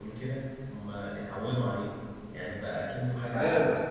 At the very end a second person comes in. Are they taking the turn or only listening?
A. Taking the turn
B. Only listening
A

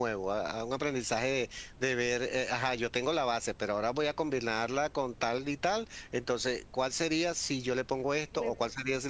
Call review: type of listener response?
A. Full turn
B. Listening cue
B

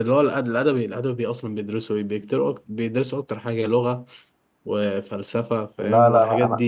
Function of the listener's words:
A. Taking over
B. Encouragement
A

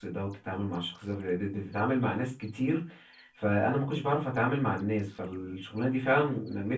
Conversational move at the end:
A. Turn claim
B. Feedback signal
B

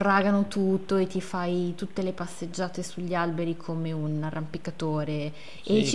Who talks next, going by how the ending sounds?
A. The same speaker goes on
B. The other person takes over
B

